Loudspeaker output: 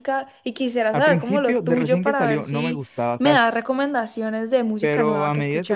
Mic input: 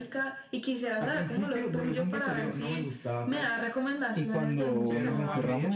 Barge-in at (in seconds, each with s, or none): 4.1 s